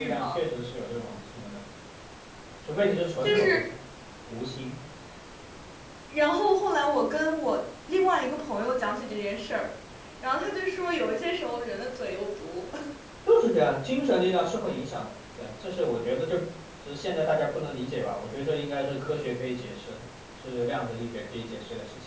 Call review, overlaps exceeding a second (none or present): none